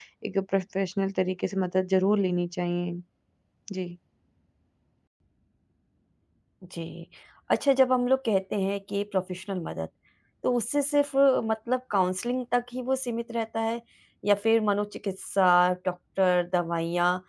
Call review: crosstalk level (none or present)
none